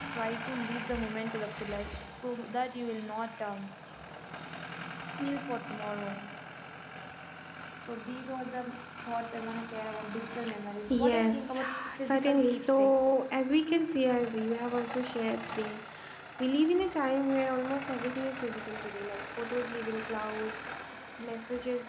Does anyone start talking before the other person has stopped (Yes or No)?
Yes